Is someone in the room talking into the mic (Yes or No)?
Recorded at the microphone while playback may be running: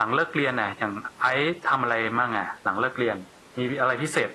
Yes